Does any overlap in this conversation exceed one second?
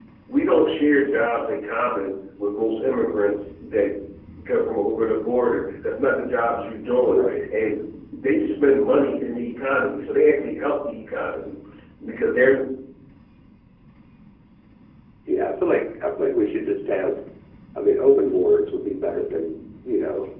No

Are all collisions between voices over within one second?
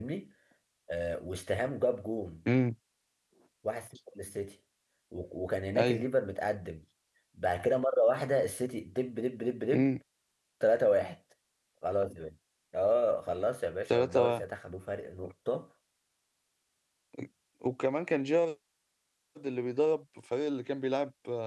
Yes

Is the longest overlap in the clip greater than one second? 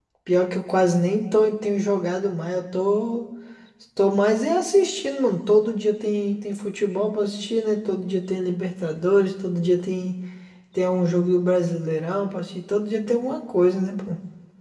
No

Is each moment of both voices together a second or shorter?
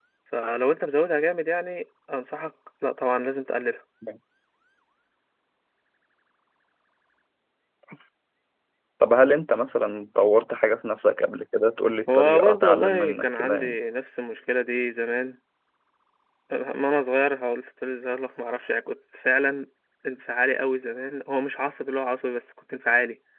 No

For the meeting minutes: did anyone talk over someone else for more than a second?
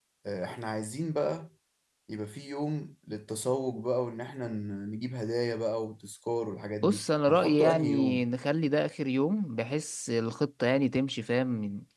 Yes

